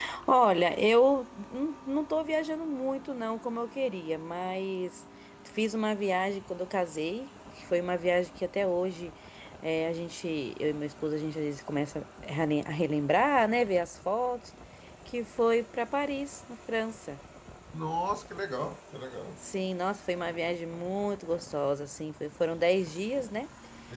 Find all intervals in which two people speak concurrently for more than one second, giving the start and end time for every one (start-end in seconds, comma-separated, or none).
none